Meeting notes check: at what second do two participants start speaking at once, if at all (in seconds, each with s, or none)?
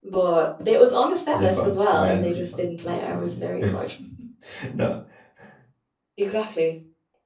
1.3 s